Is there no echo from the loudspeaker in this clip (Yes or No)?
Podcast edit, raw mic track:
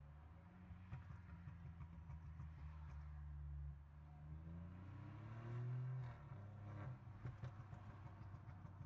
Yes